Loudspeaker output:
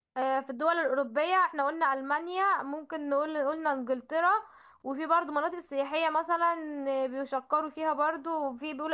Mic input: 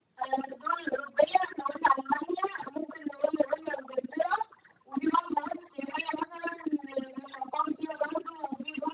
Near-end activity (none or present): none